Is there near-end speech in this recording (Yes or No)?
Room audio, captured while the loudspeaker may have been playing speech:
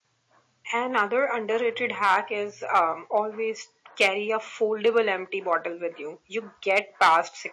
Yes